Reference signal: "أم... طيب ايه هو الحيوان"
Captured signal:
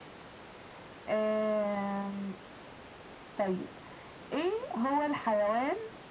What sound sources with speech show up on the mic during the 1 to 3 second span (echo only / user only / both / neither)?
echo only